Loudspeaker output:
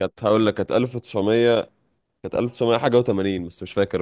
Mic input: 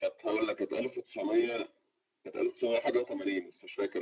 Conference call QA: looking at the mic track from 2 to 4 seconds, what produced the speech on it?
echo only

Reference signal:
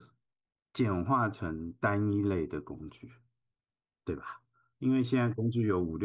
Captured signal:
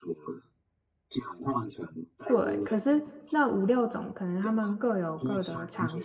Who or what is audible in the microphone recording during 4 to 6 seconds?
both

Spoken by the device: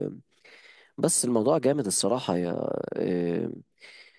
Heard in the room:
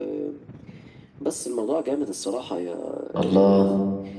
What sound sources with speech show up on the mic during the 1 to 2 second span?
echo only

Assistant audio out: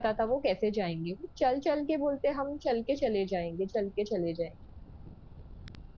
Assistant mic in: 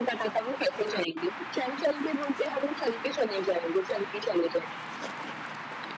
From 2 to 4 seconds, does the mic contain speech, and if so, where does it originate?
echo only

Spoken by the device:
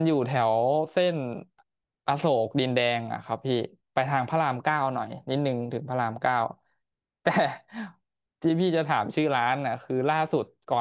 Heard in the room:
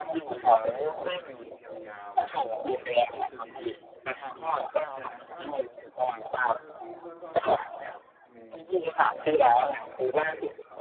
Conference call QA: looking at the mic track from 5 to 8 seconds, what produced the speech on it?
both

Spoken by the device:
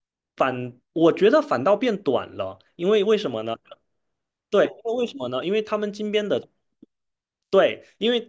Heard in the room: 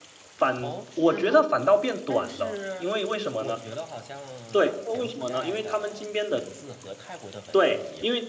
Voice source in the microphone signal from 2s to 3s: both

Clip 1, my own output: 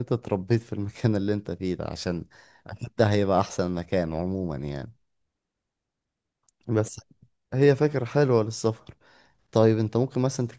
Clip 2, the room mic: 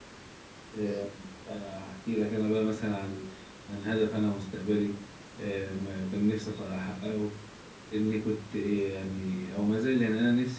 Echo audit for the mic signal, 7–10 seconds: user only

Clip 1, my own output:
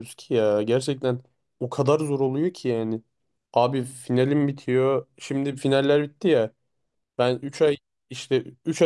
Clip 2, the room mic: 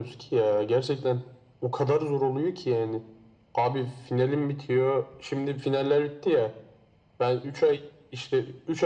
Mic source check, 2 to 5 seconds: echo only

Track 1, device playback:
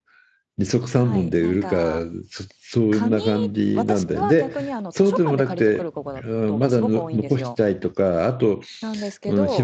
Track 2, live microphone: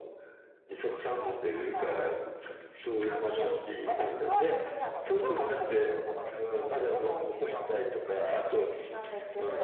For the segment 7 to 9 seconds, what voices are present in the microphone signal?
echo only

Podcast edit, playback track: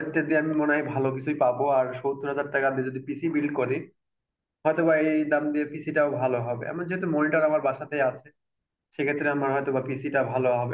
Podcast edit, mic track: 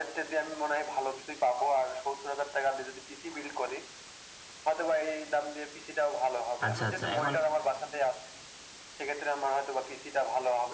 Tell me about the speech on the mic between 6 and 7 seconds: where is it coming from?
both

